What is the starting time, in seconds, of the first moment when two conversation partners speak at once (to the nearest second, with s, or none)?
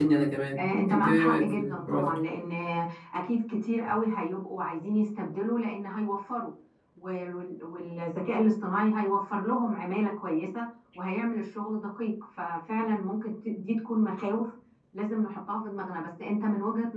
1 s